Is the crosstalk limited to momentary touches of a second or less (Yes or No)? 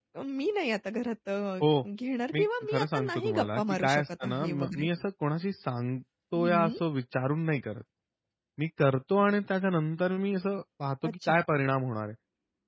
No